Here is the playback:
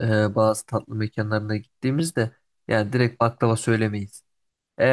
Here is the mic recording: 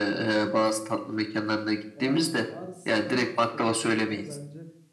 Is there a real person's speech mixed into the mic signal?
Yes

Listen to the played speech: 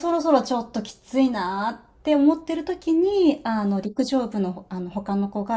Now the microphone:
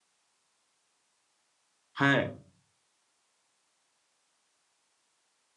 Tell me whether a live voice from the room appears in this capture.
Yes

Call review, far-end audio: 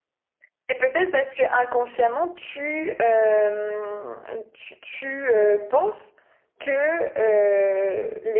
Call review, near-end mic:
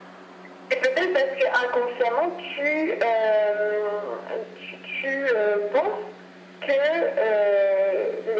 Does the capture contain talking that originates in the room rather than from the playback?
No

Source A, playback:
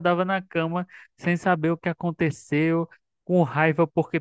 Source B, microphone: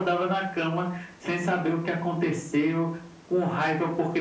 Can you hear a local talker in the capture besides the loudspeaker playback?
No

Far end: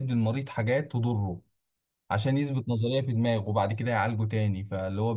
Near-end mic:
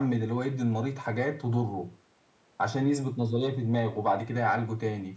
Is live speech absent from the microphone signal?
Yes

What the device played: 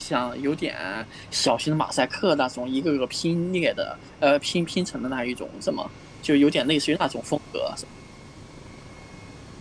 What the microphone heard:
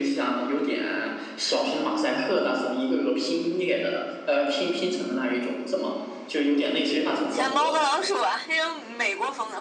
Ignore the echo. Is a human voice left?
Yes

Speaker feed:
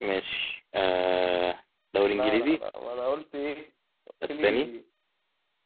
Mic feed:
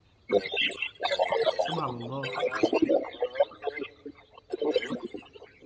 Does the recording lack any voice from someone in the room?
No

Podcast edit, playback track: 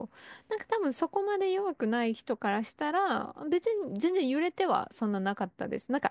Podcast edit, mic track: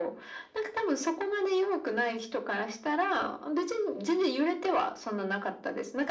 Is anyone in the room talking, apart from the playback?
No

